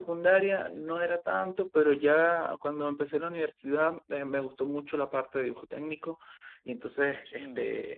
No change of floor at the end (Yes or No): Yes